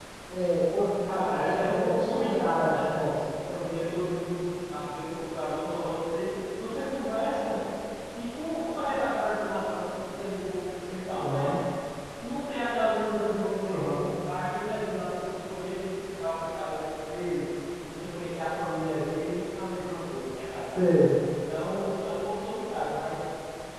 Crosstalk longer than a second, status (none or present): present